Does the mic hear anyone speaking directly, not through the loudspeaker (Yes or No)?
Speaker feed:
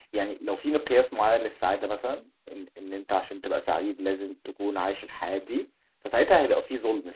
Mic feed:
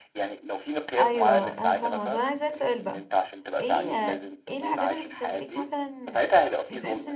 Yes